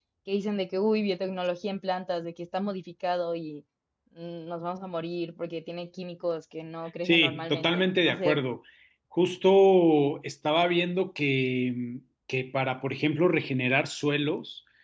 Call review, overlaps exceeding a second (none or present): present